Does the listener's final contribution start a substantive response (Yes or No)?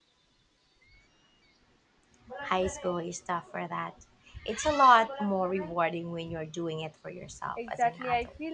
Yes